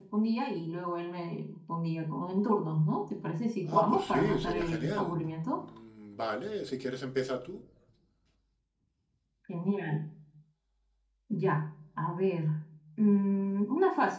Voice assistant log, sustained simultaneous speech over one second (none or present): present